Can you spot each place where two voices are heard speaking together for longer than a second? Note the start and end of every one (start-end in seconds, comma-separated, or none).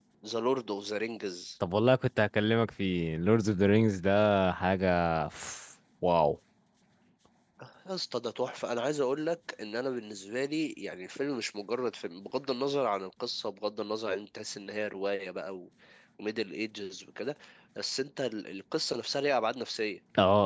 none